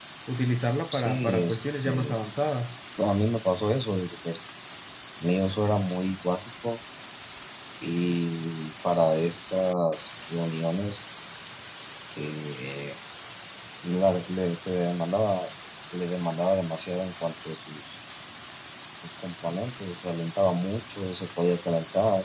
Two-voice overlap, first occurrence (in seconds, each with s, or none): 0.9 s